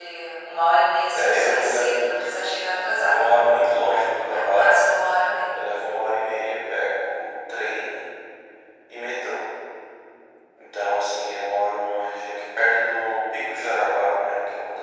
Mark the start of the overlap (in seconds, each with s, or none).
1.1 s